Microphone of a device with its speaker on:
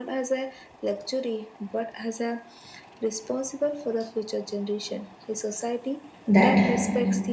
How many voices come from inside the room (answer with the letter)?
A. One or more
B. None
A